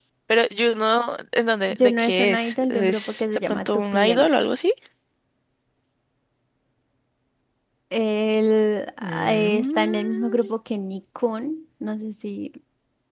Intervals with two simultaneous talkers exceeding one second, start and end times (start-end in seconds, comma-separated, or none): 1.8-4.3, 9.0-10.4